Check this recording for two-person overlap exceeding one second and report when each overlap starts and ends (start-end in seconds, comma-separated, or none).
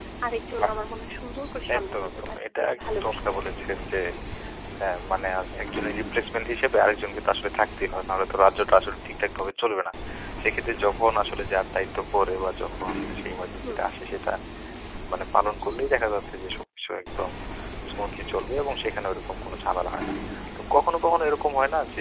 1.8-3.5